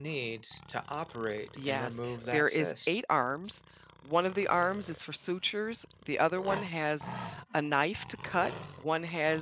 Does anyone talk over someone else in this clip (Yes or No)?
Yes